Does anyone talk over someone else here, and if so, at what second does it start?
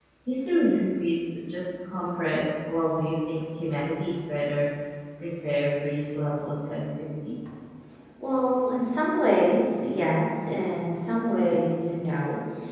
none

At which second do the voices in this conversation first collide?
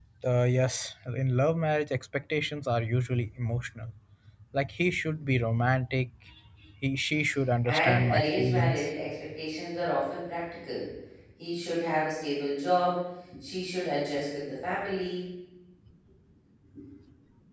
7.7 s

